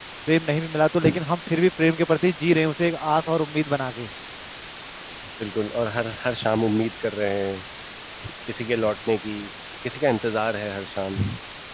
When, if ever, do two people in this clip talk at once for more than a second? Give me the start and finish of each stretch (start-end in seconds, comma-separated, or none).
none